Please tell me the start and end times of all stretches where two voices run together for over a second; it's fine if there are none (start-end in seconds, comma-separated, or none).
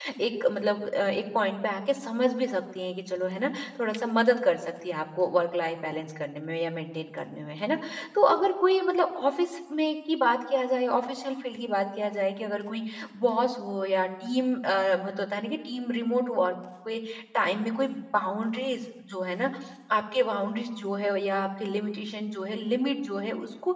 none